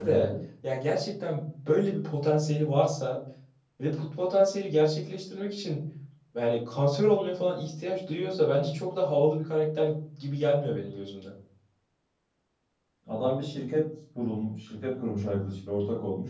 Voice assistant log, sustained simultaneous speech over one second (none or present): none